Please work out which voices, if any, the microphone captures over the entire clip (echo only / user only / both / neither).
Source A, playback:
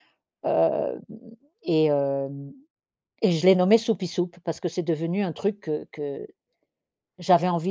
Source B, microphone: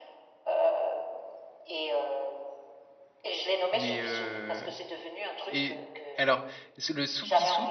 both